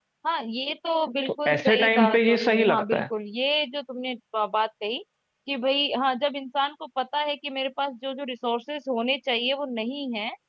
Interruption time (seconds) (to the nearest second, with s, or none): 1 s